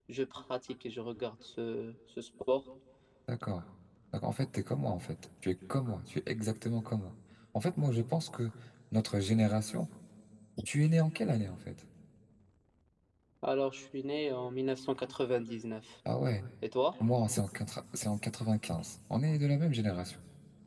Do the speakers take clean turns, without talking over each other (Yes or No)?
Yes